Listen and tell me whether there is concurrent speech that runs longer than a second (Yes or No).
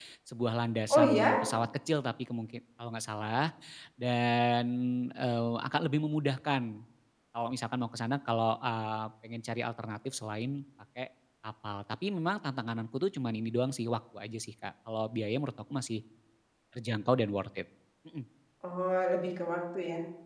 No